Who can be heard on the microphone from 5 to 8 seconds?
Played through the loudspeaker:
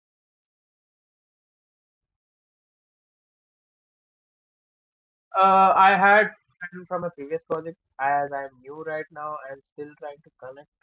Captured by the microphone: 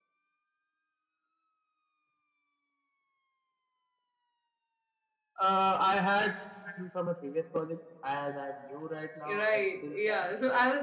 echo only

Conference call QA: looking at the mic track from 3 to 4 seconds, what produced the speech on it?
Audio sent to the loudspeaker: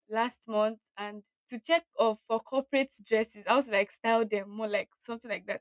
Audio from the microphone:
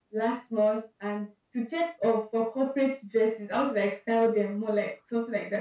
echo only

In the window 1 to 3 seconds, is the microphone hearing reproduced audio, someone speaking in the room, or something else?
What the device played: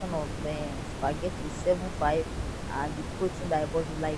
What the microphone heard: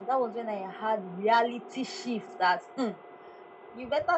user only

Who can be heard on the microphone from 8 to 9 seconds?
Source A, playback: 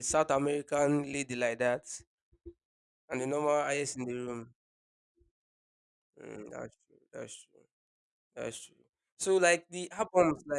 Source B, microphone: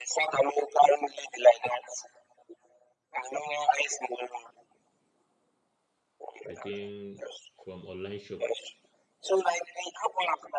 both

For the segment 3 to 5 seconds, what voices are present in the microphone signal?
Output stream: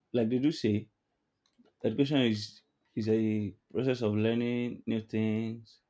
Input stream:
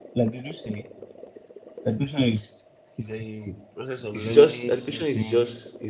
both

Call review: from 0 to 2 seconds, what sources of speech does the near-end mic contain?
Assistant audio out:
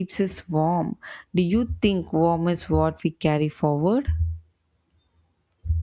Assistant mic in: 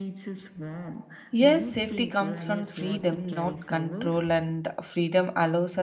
both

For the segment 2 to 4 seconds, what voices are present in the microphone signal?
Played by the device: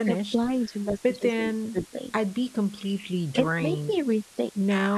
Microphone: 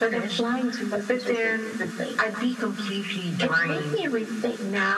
echo only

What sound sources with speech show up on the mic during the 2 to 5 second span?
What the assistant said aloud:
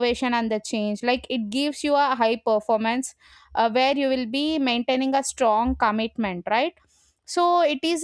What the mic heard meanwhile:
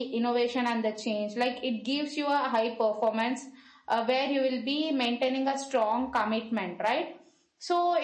echo only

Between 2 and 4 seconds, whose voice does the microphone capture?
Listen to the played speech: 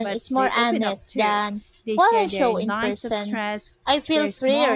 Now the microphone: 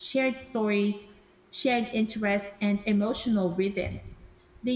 user only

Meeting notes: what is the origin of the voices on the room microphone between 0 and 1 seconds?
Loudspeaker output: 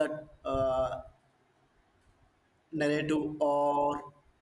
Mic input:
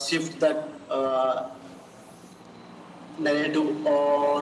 echo only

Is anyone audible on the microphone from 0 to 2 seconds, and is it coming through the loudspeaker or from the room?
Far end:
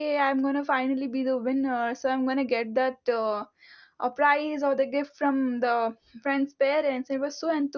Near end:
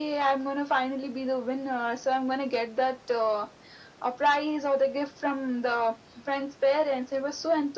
echo only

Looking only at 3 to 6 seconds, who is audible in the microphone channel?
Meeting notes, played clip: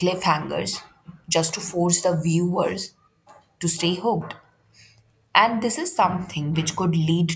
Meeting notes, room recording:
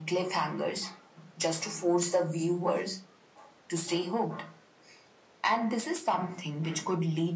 echo only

